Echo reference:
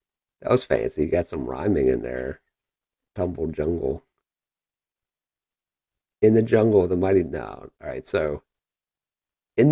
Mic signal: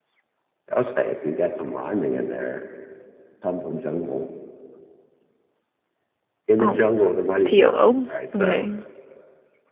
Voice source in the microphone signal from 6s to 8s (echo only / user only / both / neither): both